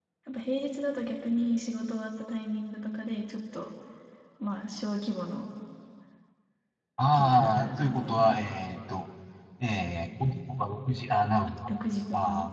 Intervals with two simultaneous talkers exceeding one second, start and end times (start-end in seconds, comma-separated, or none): 7.1-8.4